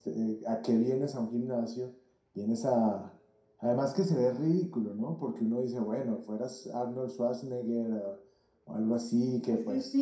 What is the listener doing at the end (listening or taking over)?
taking over